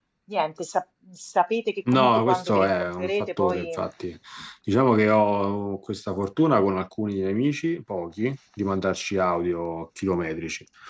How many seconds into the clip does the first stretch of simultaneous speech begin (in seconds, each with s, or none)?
1.9 s